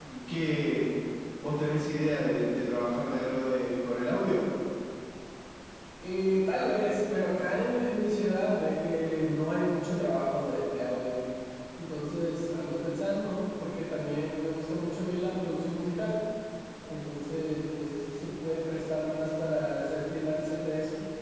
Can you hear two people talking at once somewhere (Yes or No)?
No